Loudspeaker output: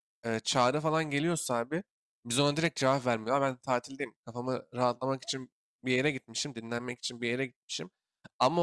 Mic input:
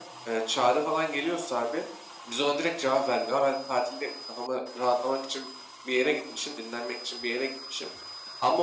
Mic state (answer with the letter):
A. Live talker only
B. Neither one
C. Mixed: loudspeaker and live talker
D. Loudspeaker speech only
D